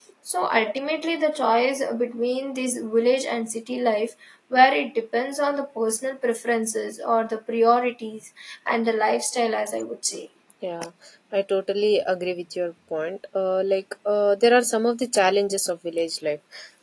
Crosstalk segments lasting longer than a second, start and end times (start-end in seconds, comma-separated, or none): none